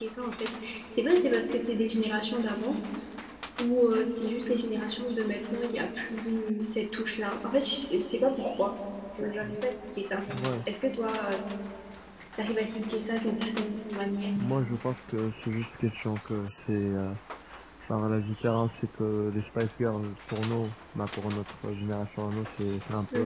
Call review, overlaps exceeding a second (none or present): none